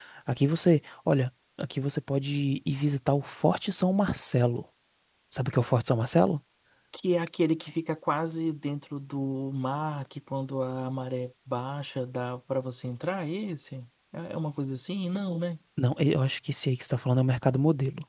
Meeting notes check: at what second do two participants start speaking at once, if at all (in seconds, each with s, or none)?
none